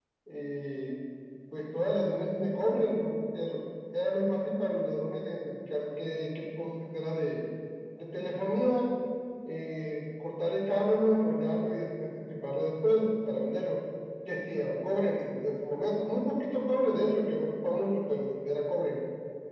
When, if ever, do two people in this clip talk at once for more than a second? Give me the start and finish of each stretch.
none

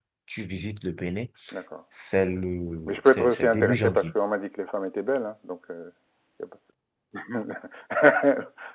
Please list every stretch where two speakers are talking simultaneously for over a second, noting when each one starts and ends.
2.9-4.1

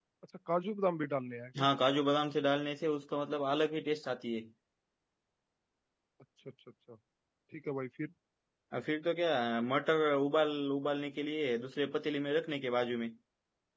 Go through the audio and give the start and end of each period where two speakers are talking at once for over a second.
none

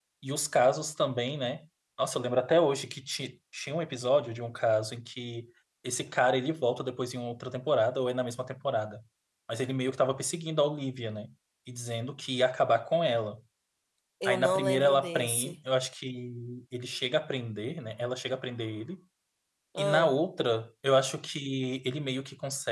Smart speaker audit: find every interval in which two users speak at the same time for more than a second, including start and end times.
14.2-15.6

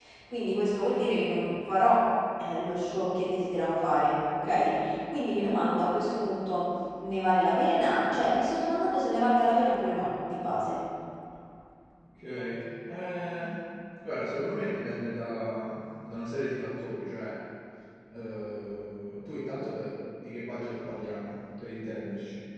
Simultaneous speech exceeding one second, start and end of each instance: none

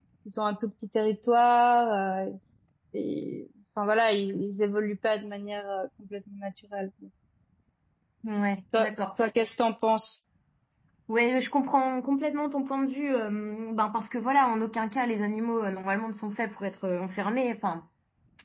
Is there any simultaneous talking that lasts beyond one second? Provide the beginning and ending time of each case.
none

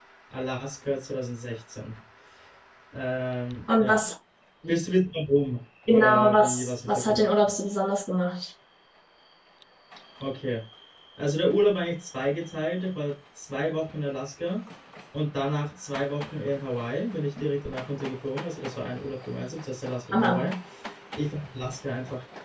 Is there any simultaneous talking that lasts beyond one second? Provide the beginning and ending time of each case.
5.9-7.2

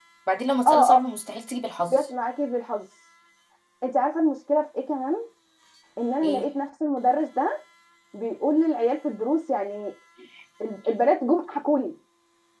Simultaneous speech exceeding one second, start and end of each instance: none

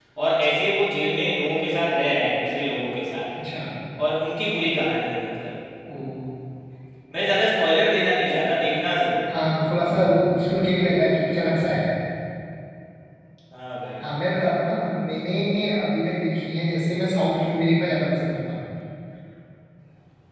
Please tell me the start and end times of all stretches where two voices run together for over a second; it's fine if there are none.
none

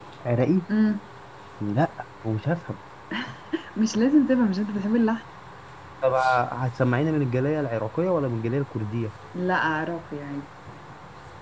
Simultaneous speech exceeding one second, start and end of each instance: none

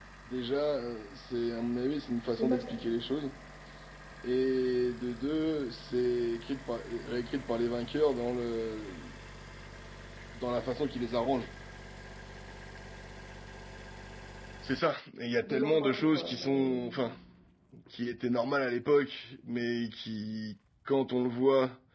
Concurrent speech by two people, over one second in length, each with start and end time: 15.4-16.9

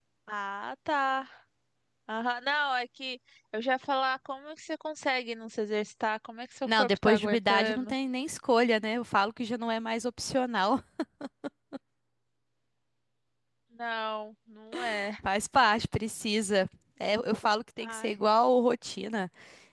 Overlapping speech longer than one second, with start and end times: 6.7-7.9

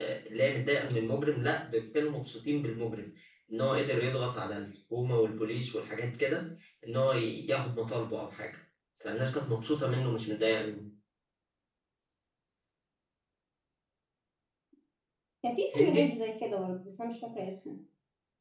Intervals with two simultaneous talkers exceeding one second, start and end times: none

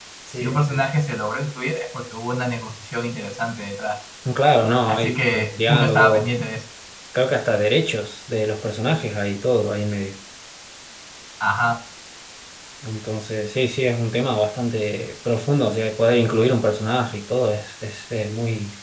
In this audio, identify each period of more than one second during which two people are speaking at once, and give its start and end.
4.9-6.3

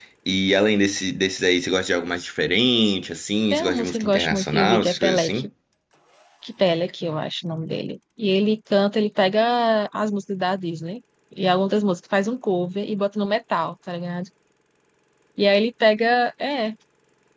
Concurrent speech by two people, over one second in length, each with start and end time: 3.5-5.5

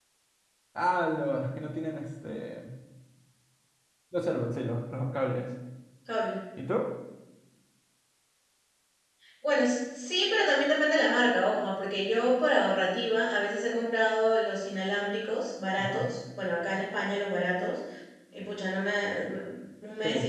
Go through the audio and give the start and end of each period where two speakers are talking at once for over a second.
none

